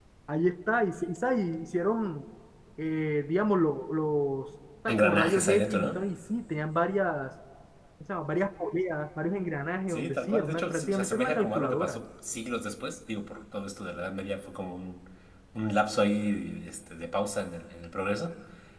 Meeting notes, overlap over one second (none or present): present